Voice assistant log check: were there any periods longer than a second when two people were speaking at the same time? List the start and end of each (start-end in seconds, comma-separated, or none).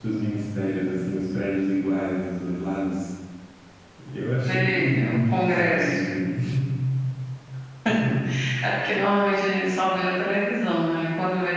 4.4-5.9